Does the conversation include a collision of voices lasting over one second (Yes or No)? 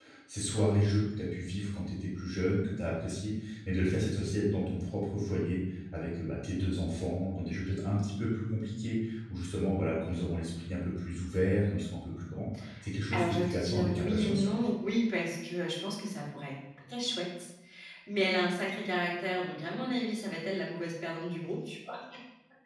Yes